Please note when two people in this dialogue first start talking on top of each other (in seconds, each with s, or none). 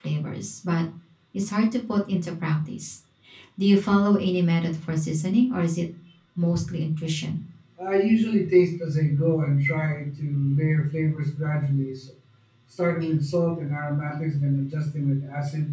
none